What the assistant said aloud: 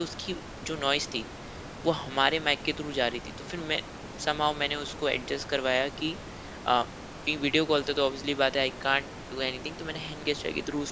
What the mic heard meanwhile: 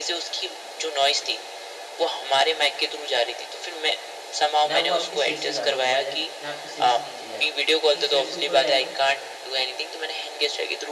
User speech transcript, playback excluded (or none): ना वो आपके सिर से ज़्यादा ऊपर जाए ना आपके सिर से नीचे जाए क्योंकि सिर से ऊपर जाएगा